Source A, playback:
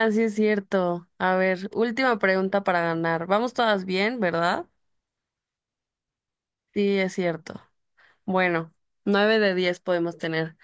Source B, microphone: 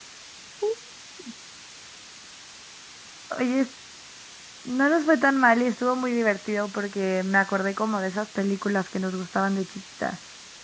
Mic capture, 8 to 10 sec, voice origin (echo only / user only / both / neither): user only